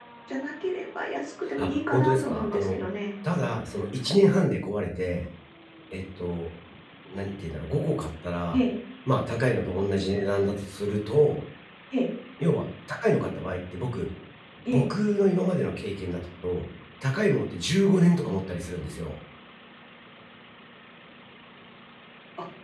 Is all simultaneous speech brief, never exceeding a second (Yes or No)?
No